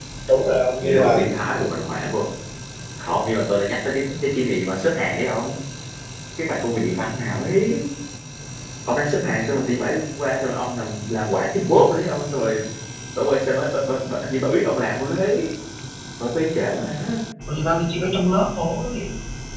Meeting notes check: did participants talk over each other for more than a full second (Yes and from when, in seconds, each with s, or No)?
No